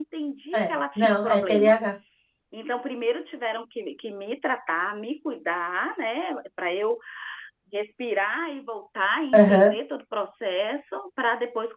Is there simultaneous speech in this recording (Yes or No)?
Yes